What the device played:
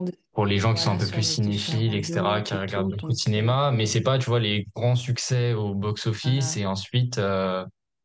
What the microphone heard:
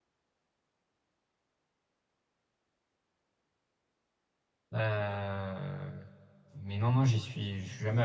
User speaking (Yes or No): Yes